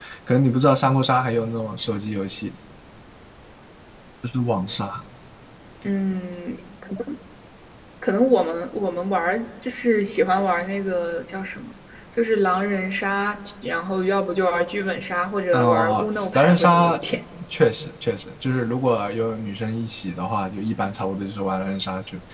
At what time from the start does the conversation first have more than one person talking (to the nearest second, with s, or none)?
16 s